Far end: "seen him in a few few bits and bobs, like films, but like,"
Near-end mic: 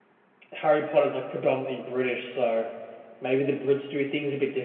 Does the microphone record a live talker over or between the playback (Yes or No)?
Yes